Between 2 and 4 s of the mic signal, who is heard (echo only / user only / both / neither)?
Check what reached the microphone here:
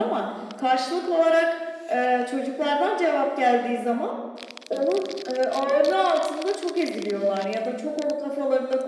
echo only